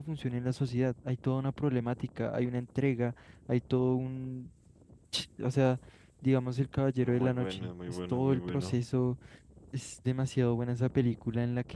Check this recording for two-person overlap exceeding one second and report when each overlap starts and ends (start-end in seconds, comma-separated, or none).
7.0-8.8